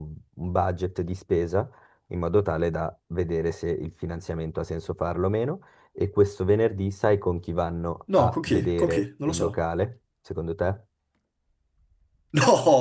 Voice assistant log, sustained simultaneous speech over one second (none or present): present